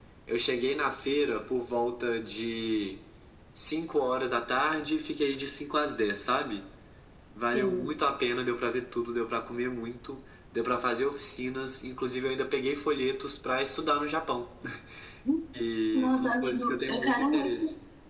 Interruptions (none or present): present